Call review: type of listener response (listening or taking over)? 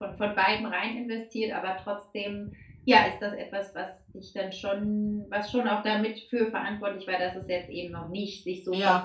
taking over